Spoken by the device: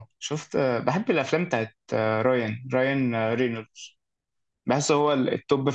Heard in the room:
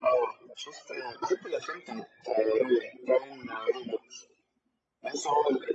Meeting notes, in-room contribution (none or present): none